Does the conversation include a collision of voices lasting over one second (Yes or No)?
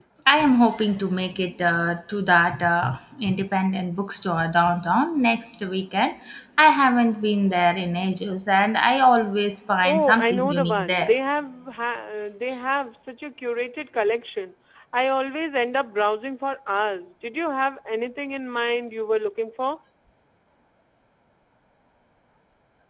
Yes